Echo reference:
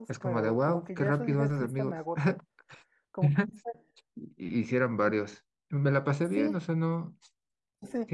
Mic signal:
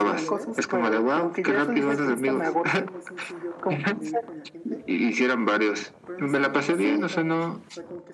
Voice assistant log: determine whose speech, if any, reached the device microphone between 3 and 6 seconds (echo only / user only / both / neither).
both